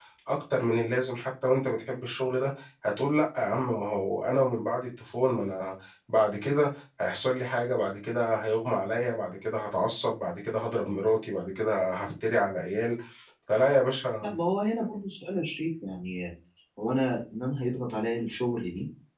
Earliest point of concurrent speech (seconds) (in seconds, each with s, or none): none